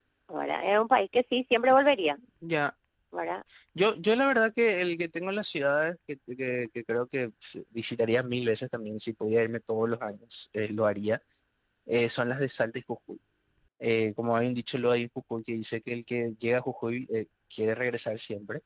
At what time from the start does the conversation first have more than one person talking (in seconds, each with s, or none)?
none